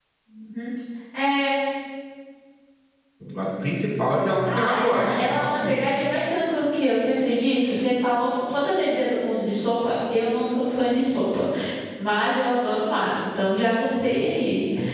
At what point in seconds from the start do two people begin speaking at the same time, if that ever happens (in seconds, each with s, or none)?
4.4 s